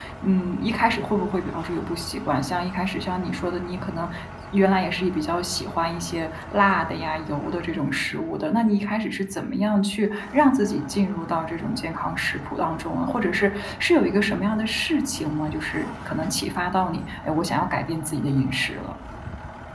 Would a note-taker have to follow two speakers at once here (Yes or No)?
No